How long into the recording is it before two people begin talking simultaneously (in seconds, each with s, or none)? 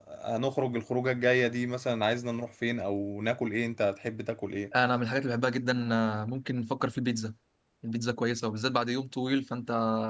none